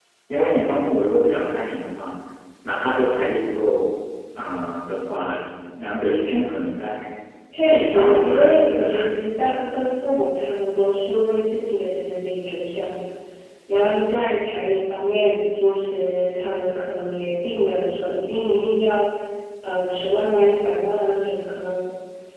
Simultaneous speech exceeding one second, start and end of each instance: 7.7-9.0

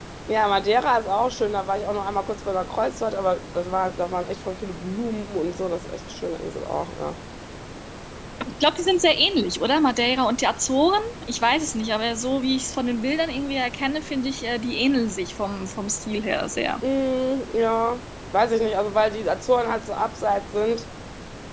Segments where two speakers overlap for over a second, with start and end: none

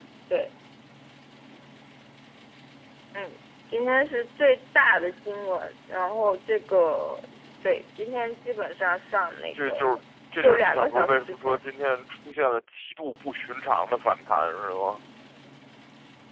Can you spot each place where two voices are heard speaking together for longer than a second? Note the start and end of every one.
10.4-11.6

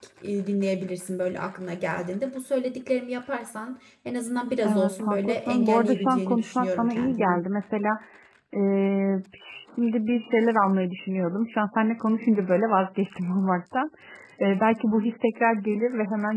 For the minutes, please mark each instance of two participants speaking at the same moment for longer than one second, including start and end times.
4.7-7.4

